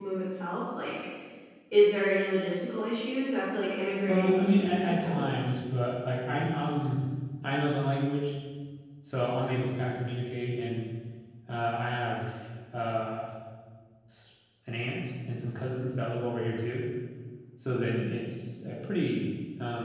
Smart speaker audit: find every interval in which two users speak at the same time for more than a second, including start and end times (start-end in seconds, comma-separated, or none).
4.1-5.3